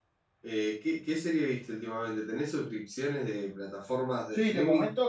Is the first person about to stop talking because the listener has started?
Yes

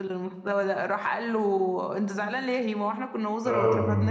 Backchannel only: No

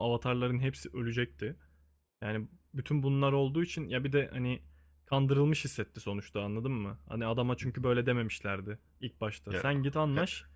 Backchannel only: Yes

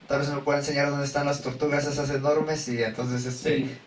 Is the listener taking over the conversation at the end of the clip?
No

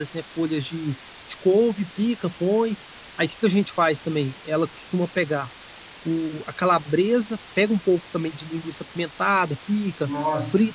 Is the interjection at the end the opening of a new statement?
No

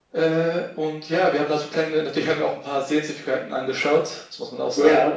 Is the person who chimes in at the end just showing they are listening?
Yes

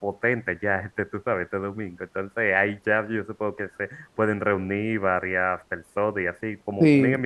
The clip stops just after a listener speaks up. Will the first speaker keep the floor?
Yes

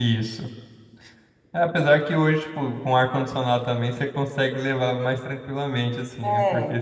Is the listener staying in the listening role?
Yes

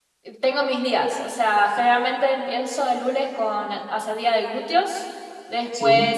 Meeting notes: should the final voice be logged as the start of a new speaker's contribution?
No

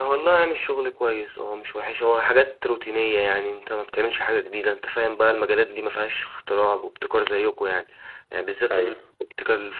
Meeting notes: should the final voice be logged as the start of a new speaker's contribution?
No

